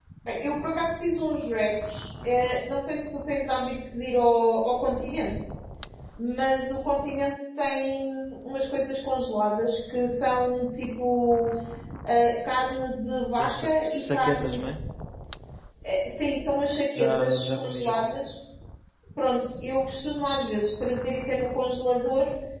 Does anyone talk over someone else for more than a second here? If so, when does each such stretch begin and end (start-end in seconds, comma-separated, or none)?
13.4-14.6, 16.9-18.1